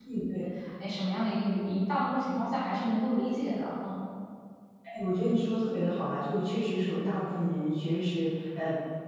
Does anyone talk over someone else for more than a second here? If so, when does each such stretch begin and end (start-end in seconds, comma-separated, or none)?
none